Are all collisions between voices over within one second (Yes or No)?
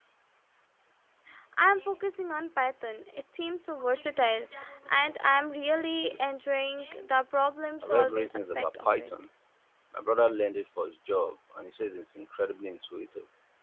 No